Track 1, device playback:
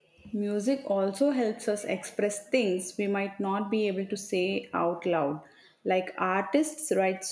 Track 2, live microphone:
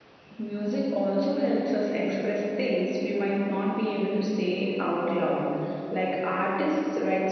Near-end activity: none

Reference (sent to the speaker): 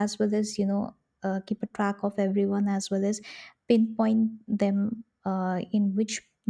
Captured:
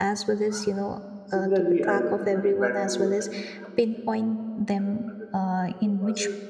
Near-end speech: present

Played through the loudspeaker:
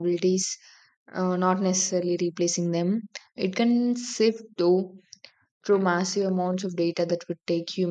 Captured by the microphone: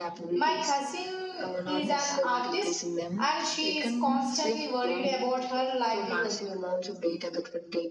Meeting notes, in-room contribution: present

